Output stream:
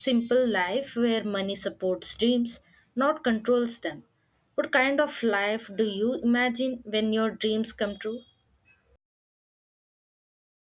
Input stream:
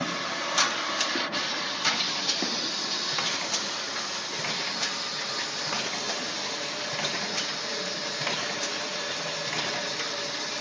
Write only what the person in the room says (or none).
none